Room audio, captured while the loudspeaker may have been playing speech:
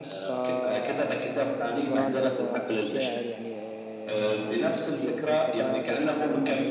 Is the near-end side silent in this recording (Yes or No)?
No